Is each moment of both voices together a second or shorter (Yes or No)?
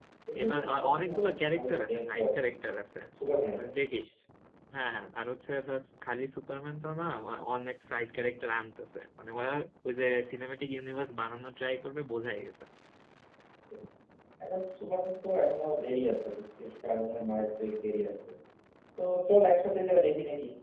No